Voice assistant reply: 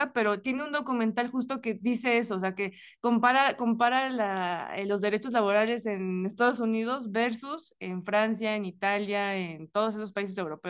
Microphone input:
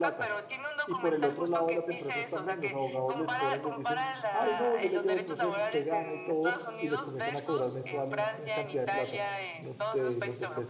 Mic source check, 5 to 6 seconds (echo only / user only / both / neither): both